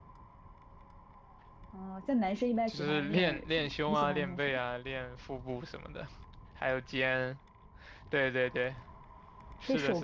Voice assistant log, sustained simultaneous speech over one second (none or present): present